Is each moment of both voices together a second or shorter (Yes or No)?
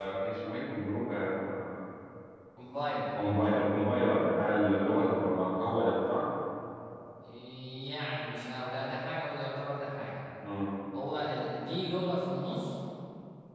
Yes